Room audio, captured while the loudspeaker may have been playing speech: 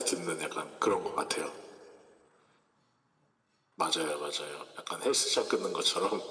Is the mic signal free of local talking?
Yes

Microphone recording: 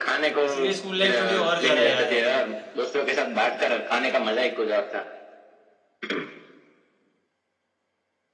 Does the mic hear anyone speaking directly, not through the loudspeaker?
Yes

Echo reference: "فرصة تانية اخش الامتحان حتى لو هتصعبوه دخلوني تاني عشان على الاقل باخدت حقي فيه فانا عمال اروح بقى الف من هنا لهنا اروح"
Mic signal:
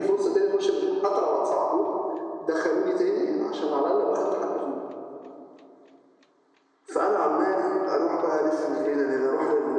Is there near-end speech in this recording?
No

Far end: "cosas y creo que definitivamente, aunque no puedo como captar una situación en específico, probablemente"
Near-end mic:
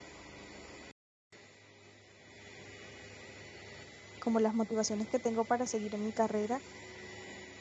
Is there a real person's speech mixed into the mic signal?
Yes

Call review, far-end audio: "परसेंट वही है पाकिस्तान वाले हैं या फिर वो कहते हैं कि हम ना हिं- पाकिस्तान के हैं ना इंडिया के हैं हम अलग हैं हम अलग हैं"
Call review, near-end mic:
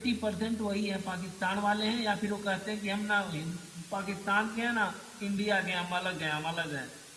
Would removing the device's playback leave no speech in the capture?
Yes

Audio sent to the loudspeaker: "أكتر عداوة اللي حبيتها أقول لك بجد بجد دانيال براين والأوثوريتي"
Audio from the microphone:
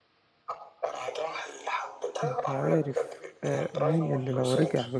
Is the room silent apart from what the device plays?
No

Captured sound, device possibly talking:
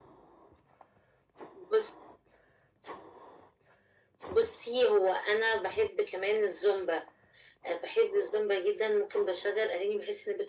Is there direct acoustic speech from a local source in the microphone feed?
No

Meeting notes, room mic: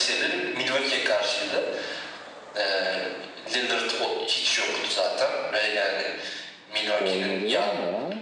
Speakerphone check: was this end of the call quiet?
No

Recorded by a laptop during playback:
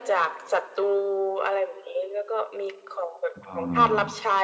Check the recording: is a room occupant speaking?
Yes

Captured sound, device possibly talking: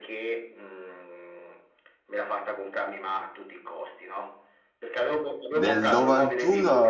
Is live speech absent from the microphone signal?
No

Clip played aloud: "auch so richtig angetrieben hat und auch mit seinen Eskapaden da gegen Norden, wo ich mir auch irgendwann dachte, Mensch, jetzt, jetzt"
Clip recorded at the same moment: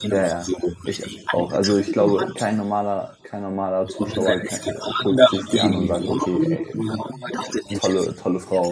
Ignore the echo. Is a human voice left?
Yes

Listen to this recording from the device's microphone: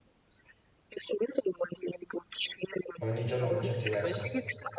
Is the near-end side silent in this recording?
No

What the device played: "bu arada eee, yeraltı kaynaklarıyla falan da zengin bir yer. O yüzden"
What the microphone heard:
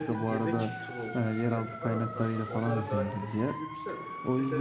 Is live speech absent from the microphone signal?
No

